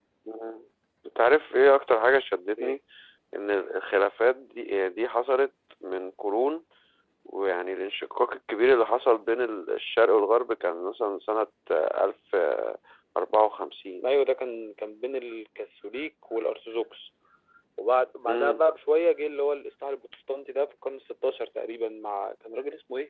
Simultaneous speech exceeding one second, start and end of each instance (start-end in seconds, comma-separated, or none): none